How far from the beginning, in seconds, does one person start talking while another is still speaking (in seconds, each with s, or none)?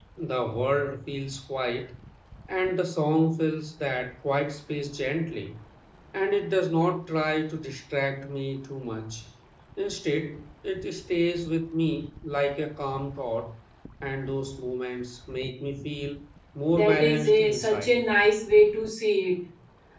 16.7 s